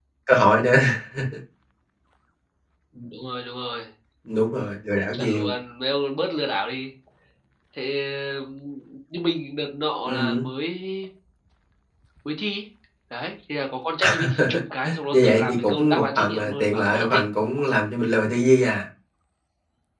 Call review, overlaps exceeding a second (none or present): present